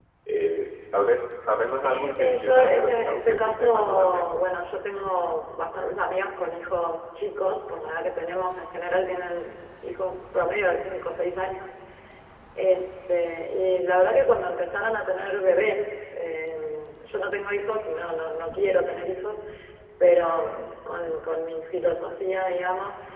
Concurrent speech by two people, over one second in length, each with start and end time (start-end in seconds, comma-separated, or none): 1.8-4.4